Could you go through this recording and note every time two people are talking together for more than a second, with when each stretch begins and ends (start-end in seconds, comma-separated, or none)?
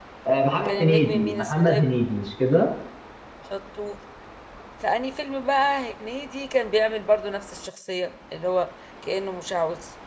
0.7-1.9